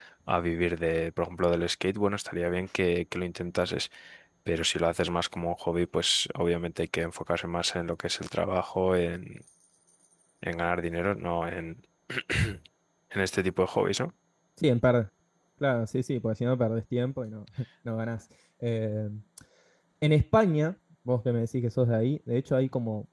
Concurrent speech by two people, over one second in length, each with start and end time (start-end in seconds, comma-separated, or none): none